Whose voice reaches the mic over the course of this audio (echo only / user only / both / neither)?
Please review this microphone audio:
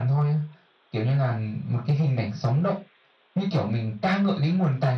echo only